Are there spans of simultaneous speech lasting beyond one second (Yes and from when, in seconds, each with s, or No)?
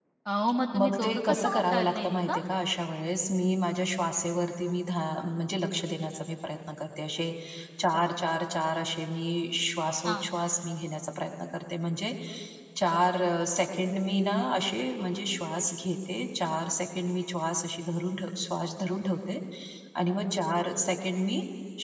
Yes, from 0.8 s